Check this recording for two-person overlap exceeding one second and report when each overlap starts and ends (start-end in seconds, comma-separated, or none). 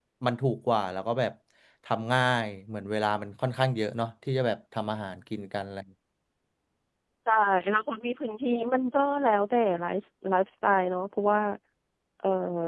none